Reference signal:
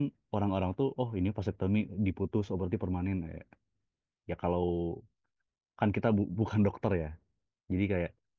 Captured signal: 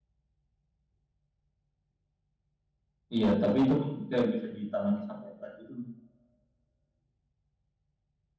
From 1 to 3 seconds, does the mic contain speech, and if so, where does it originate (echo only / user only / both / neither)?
neither